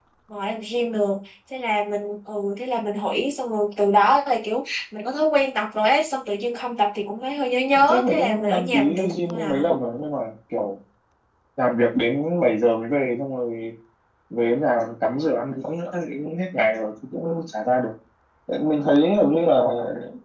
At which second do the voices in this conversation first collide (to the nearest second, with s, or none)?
8 s